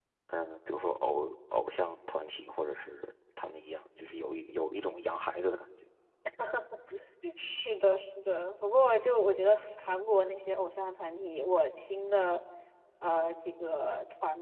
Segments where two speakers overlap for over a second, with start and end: none

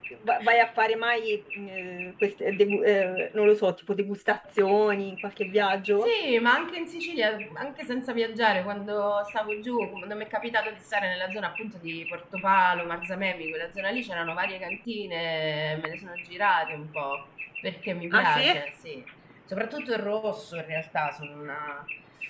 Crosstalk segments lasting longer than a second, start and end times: none

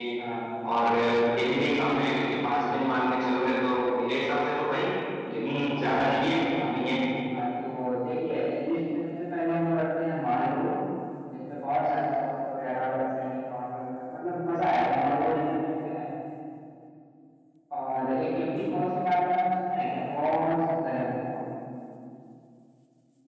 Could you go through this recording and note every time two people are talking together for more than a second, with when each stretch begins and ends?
none

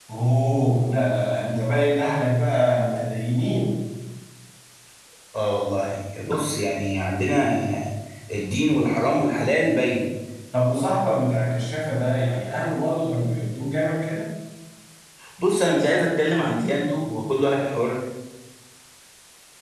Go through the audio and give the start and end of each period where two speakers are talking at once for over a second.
none

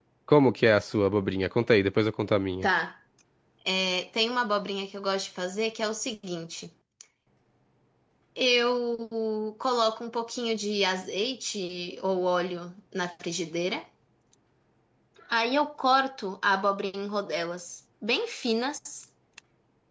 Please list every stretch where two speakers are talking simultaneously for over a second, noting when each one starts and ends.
none

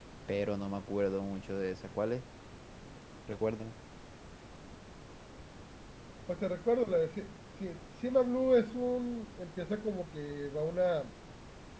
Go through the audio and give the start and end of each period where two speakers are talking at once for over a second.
none

